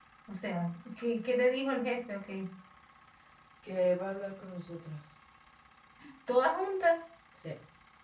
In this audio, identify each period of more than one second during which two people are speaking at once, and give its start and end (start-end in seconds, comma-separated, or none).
none